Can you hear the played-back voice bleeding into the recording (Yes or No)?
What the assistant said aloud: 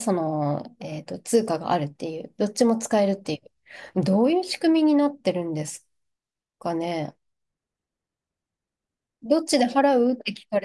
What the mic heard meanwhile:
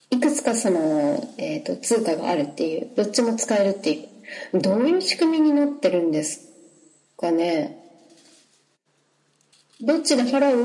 Yes